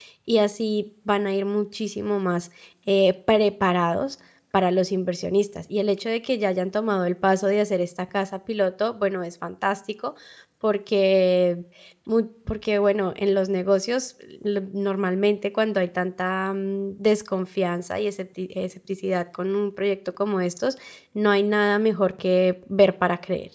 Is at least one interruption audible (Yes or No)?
No